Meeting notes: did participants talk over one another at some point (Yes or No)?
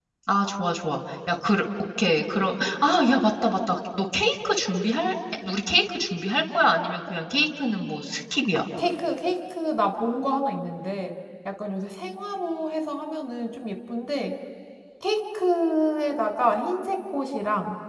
No